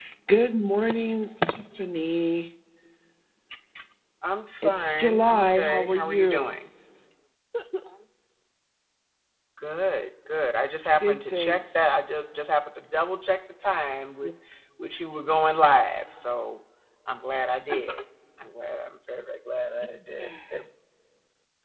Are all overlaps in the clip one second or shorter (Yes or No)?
No